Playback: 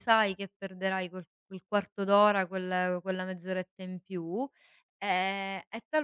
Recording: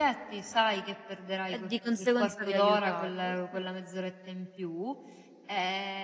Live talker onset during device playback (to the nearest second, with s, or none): 1 s